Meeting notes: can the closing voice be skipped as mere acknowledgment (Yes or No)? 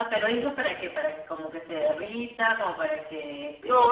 No